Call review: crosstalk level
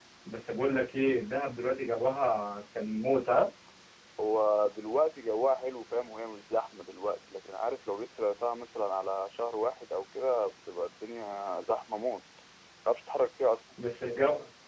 none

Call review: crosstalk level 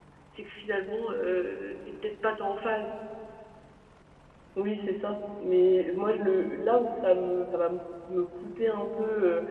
none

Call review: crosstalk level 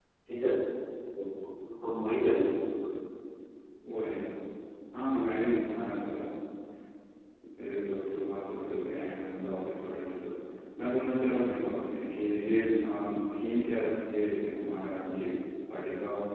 none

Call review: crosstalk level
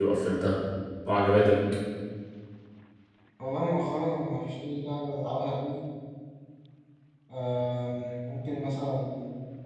none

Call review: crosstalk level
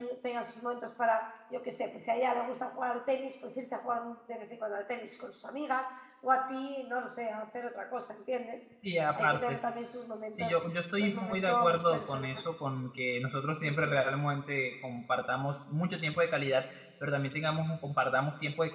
present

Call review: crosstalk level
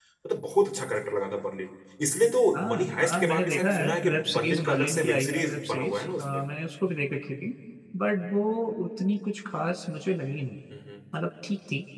present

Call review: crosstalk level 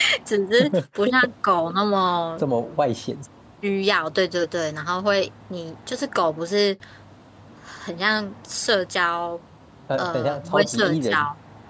present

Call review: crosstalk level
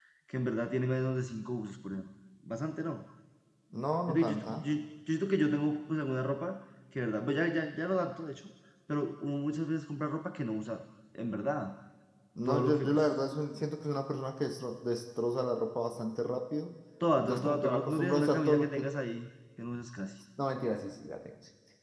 present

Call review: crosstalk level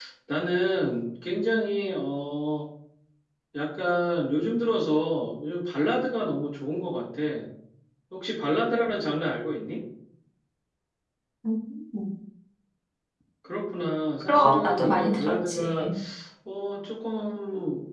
present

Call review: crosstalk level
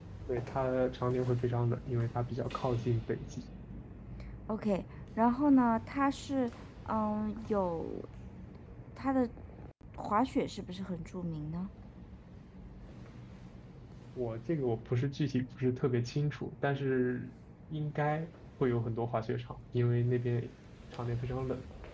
none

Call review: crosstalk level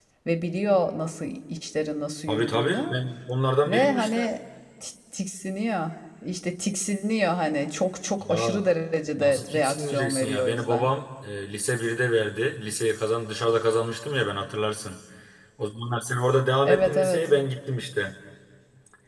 present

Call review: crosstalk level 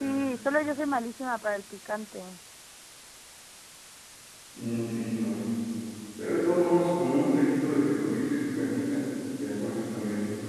none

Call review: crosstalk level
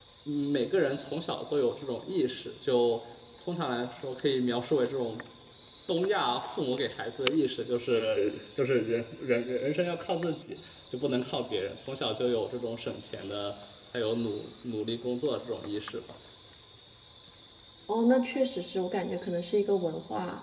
none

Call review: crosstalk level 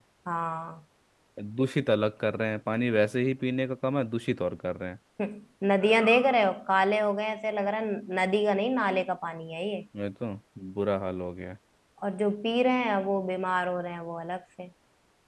none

